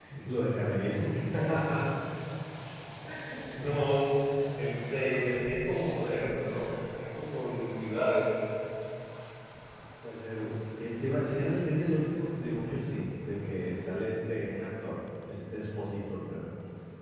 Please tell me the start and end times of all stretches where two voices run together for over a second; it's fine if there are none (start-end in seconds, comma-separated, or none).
none